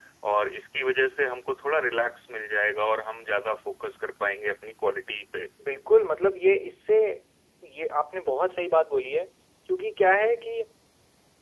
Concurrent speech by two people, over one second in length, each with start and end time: none

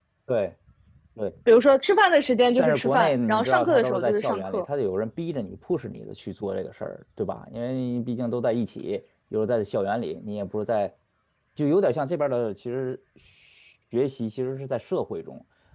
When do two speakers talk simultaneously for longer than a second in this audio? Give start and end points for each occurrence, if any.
2.6-4.6

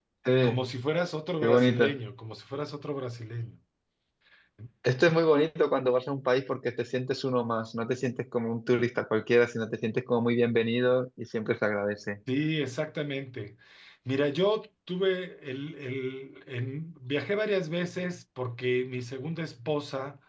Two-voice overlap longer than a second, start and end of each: none

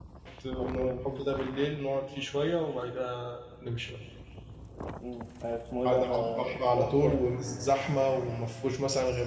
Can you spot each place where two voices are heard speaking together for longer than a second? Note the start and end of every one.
5.8-7.2

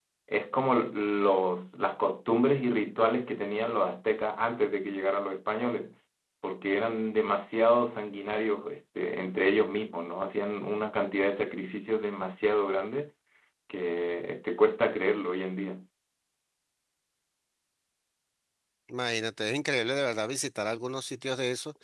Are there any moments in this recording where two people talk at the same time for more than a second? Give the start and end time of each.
none

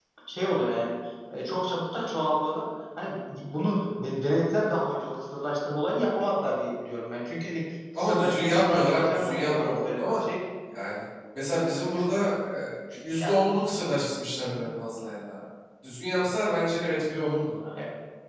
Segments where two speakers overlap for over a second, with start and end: 8.0-10.0

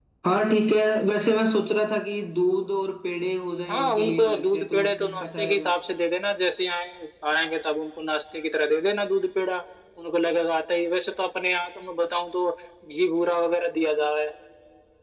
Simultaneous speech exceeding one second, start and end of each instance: 3.7-5.7

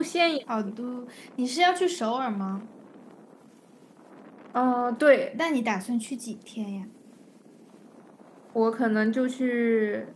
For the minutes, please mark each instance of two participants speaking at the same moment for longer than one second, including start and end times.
none

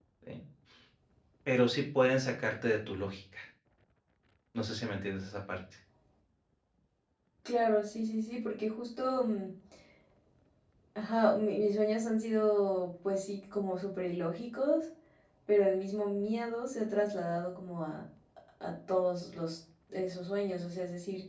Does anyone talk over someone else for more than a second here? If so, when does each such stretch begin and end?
none

